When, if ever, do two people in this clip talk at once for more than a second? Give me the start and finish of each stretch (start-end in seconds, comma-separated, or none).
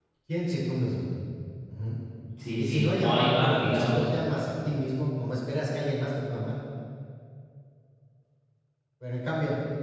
2.6-4.0